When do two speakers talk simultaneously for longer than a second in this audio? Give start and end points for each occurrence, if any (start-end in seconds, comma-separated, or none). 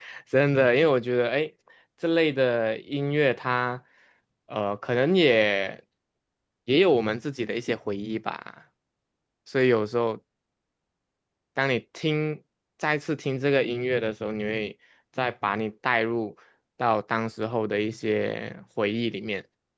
none